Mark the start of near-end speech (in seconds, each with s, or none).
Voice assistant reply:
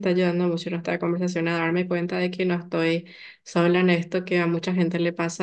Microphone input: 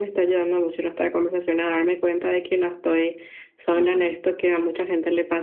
3.7 s